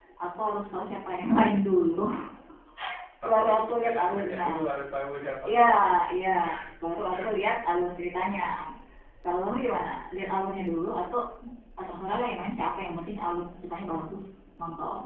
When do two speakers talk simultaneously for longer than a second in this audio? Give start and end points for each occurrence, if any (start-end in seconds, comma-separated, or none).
3.2-4.5